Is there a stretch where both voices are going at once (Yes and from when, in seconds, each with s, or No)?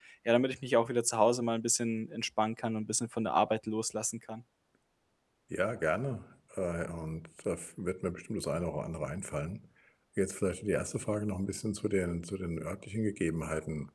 No